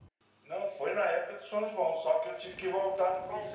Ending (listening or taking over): listening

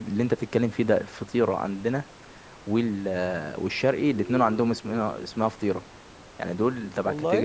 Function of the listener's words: listening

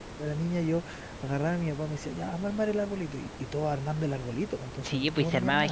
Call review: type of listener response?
taking over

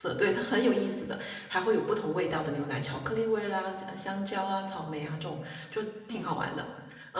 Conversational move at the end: listening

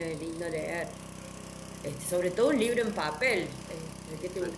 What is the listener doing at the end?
listening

